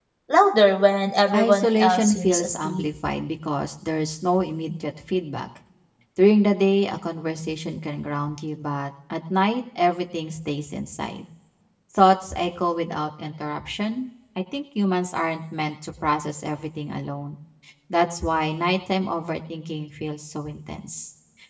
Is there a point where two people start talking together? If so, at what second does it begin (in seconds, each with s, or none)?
1.3 s